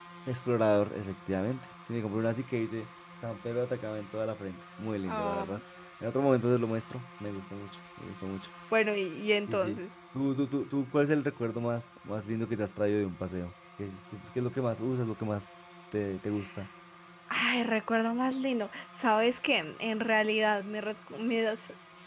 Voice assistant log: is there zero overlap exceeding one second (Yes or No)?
Yes